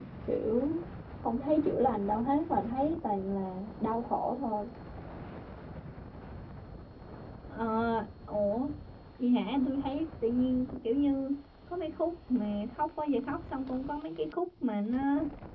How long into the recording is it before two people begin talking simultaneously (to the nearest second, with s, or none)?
none